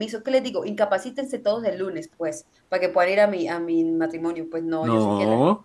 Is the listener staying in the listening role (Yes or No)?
Yes